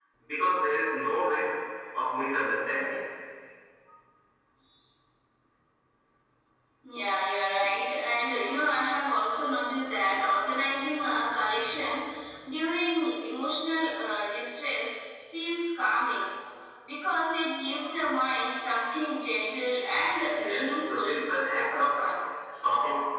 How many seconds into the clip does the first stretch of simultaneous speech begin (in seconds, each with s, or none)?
20.3 s